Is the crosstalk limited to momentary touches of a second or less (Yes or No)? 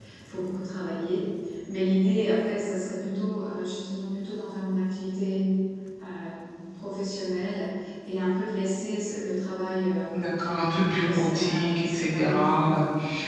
No